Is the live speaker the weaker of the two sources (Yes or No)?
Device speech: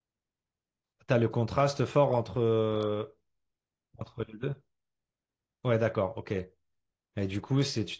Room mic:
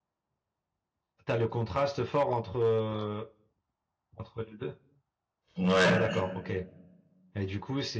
No